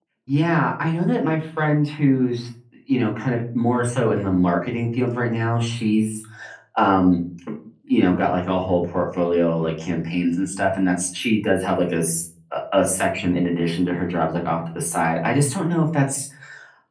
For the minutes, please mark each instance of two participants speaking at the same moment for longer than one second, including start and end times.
none

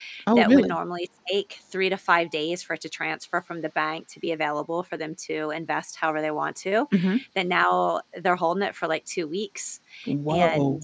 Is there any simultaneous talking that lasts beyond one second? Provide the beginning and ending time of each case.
none

